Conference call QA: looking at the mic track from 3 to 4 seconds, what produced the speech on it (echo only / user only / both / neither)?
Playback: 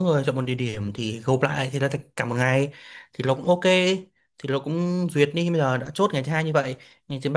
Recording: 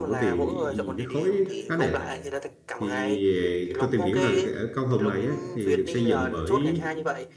both